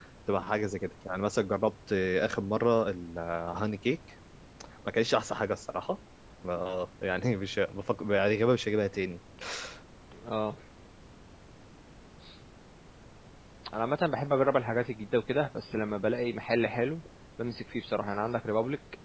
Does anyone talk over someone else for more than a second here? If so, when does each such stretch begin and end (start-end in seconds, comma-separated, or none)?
none